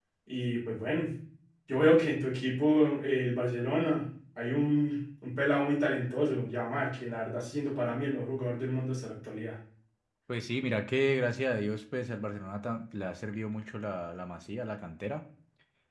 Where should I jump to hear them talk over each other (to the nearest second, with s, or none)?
none